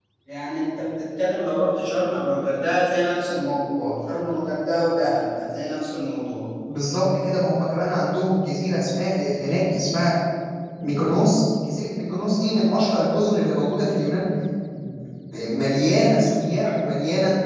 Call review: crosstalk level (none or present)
none